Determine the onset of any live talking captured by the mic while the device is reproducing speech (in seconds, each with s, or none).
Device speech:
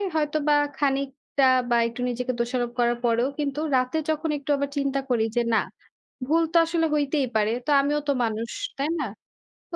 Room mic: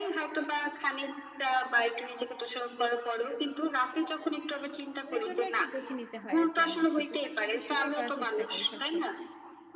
5.1 s